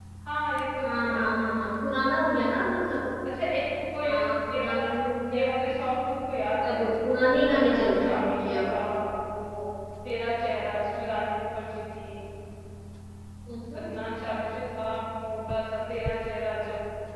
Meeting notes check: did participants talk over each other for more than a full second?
Yes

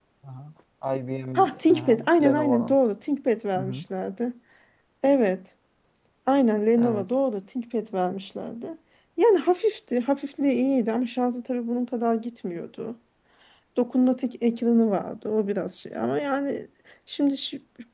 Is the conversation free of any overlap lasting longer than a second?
No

